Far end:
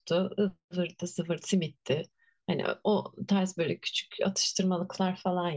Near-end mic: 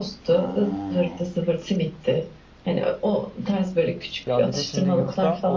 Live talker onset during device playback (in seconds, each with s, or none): 4.2 s